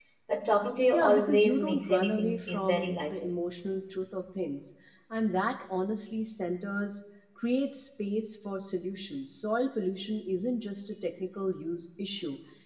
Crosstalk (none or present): present